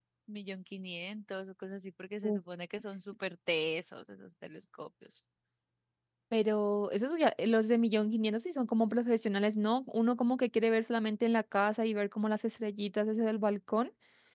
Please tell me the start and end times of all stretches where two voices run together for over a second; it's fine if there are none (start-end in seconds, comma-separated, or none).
none